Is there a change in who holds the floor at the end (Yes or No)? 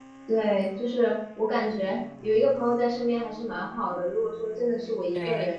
No